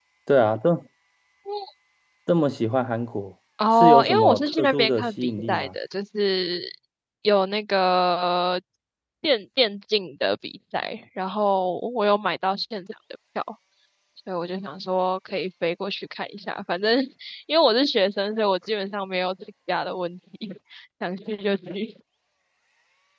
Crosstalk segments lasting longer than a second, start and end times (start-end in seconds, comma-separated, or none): 3.8-5.7